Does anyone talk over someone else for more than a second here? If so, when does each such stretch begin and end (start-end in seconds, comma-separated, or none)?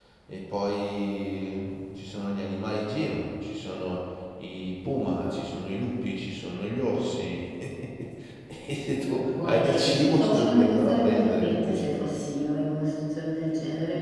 9.3-11.9